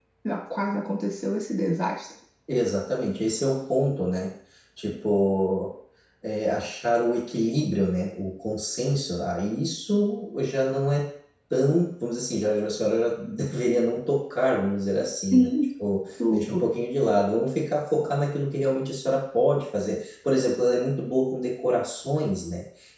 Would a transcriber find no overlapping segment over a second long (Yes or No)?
Yes